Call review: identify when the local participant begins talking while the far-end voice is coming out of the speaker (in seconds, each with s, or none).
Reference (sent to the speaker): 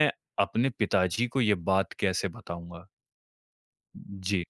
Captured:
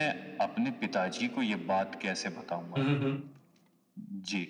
2.8 s